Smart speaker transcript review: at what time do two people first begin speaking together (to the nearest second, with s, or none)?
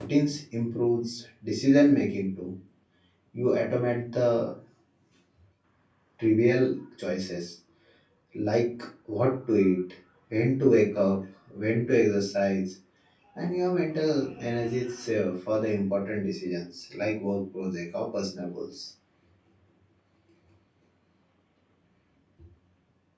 none